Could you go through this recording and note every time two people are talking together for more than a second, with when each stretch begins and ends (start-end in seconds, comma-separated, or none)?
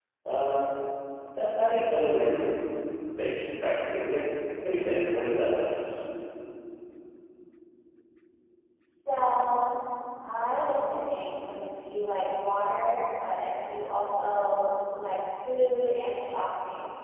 none